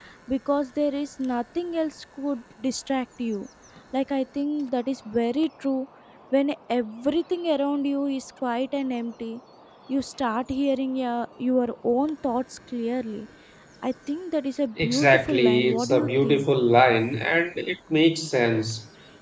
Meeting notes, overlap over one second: present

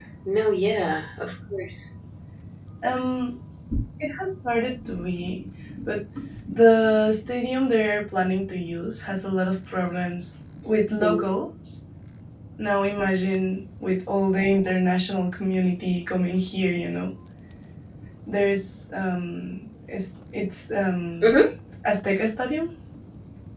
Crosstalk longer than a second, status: none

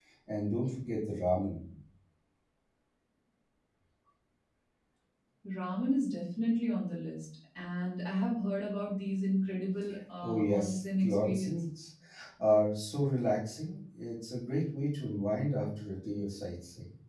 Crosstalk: present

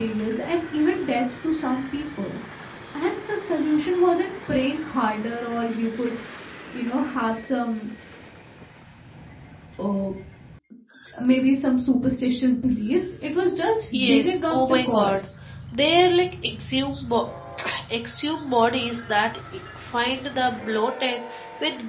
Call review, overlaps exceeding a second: present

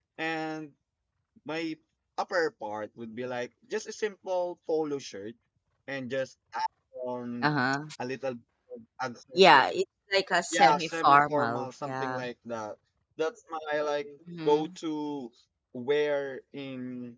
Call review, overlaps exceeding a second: present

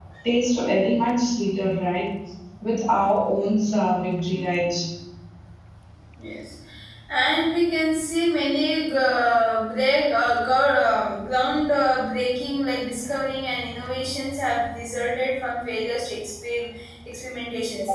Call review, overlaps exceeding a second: none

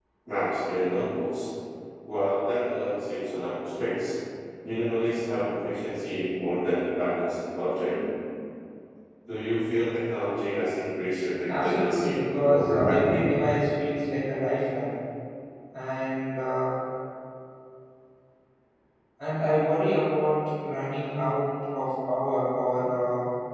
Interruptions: present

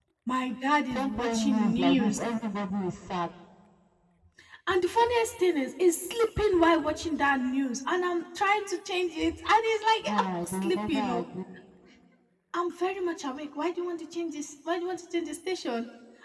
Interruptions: present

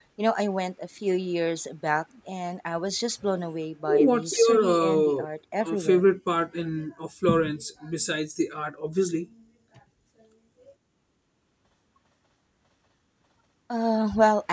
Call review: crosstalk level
present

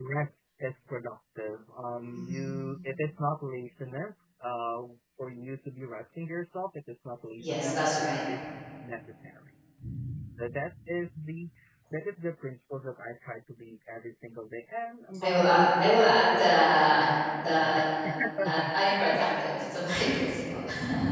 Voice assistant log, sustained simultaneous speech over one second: present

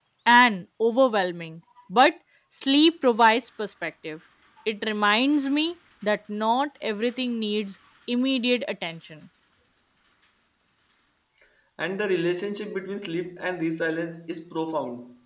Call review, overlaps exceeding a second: none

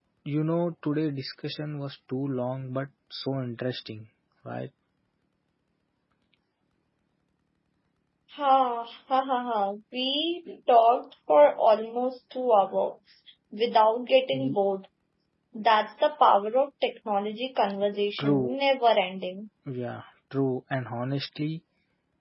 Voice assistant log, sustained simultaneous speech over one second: none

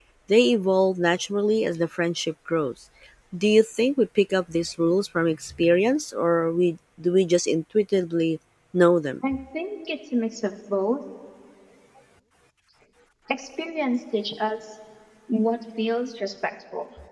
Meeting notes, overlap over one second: none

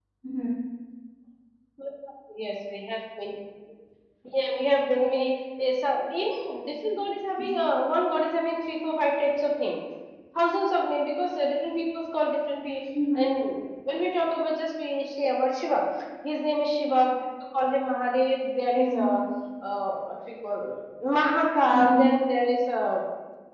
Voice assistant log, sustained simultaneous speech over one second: none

